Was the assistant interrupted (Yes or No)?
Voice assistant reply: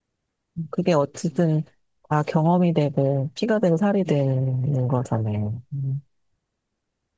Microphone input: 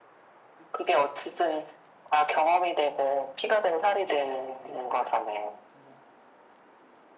No